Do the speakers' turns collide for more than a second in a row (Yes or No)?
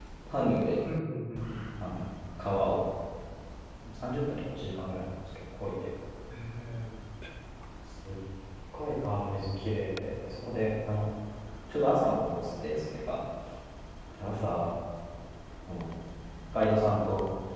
No